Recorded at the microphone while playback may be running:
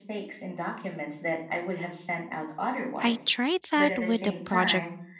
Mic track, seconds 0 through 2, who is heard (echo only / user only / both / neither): echo only